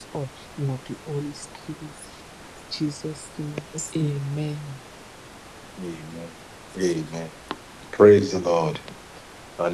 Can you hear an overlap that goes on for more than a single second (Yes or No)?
No